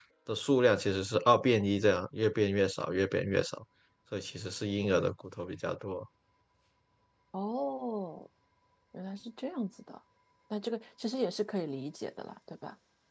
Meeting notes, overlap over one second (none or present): none